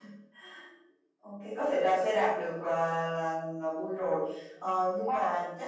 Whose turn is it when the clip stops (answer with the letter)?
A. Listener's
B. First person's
B